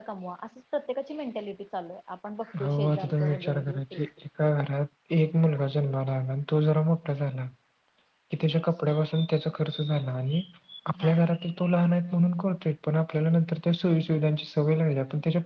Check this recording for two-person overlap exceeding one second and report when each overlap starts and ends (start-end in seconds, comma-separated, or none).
2.6-4.0